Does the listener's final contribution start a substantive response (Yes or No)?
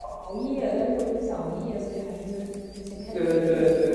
Yes